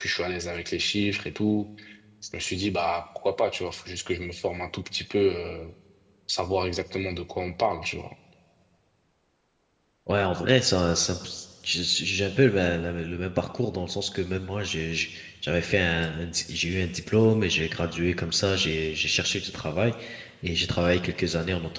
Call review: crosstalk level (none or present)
none